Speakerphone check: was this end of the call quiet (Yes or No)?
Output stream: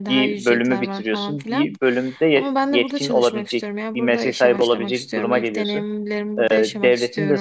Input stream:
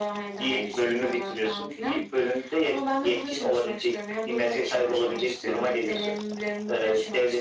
Yes